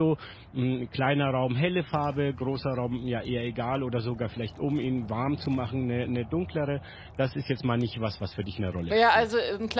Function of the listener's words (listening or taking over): taking over